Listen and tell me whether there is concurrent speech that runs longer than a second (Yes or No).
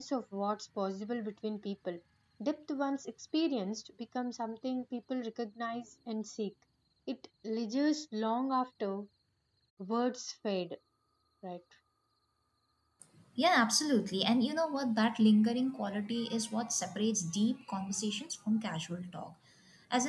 No